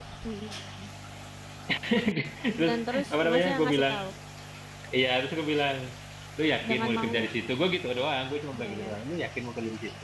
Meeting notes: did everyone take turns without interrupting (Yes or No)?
No